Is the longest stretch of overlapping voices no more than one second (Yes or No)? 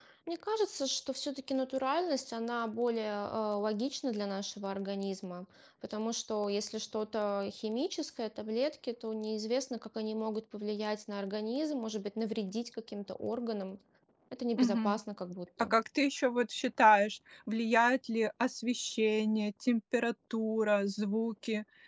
Yes